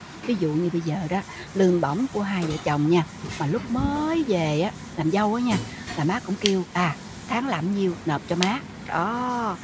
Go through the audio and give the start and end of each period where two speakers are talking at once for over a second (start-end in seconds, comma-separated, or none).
none